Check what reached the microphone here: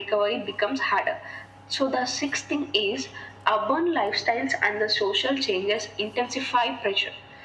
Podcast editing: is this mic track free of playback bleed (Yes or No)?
No